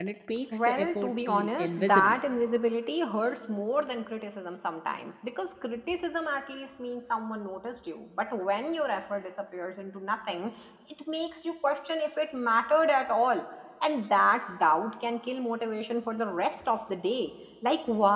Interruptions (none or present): present